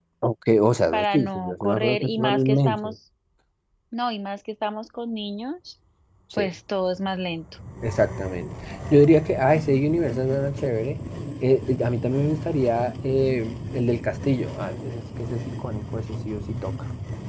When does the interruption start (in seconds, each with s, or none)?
0.9 s